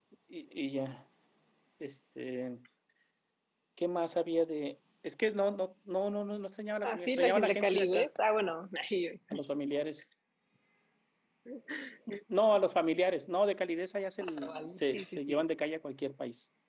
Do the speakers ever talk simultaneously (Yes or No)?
Yes